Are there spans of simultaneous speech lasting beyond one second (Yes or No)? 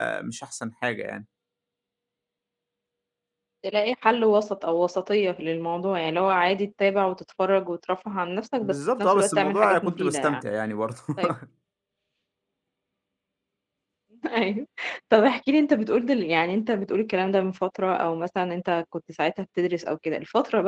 Yes